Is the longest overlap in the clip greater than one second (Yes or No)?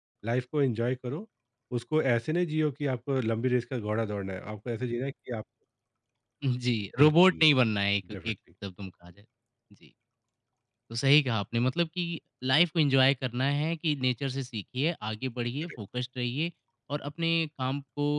No